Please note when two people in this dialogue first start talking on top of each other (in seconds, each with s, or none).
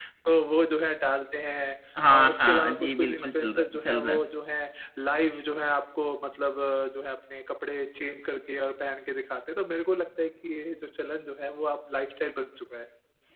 2.2 s